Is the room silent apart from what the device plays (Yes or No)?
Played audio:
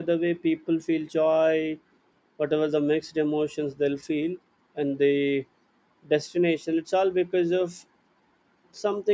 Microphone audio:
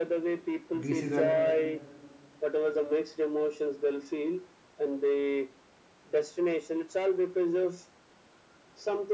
No